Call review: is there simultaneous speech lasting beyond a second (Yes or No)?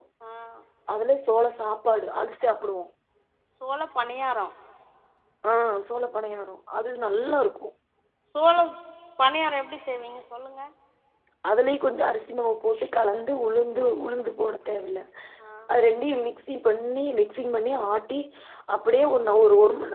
No